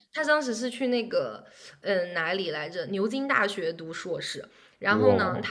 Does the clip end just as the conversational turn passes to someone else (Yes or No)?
No